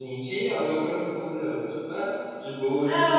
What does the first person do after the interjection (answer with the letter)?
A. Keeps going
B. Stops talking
B